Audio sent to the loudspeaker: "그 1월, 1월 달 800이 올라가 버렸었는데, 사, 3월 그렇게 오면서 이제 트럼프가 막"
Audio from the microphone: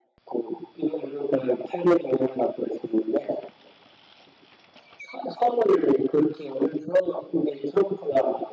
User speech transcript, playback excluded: none

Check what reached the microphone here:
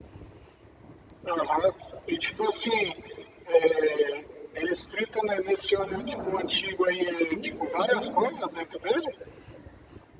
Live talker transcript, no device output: Na moral, pumedames.

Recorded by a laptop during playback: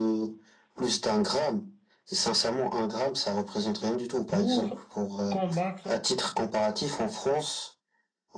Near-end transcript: pour combattre

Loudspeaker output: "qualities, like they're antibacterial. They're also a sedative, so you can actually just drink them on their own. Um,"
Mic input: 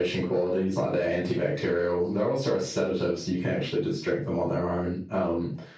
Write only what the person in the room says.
none

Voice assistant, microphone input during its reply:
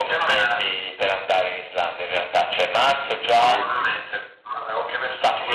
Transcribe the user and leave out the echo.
E-

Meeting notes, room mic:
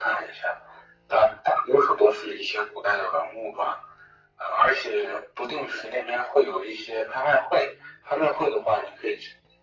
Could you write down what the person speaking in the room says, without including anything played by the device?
none

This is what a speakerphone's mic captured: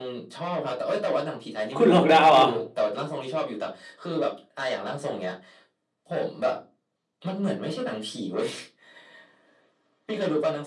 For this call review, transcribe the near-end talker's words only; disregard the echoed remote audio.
คุณหลอกดาวเหรอ่ะ

